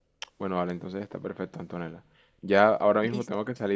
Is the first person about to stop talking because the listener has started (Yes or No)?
No